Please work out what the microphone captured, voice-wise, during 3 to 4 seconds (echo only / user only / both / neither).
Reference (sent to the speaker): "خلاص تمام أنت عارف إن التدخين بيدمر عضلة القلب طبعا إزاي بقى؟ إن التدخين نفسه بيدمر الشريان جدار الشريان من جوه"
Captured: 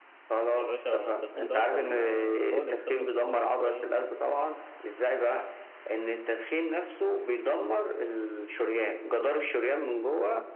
both